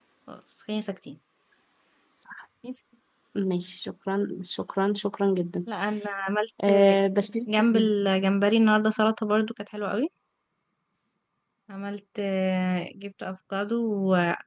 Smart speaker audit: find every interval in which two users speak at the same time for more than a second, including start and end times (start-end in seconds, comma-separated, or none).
none